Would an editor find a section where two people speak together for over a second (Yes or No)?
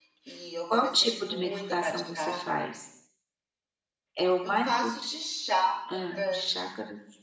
Yes